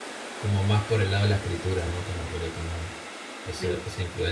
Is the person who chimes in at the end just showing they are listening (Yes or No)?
Yes